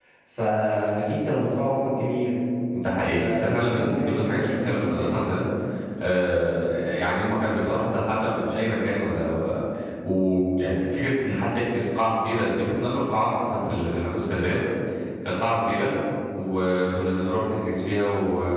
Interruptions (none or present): present